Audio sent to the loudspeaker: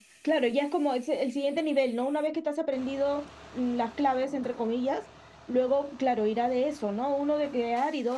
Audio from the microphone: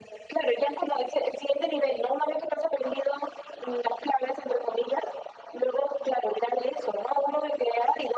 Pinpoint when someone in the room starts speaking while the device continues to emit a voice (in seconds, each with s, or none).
none